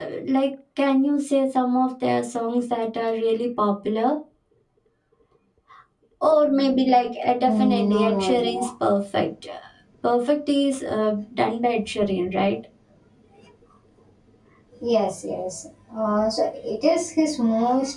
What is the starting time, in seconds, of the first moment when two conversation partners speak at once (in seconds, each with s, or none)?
7.5 s